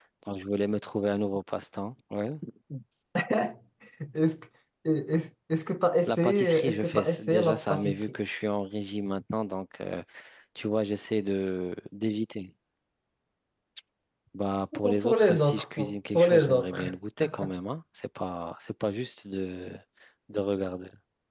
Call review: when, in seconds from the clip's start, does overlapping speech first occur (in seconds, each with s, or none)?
6.1 s